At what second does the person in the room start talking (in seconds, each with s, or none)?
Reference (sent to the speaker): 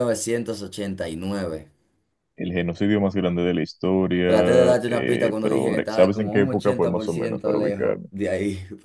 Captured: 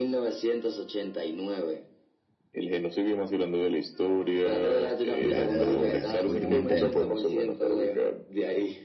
5.2 s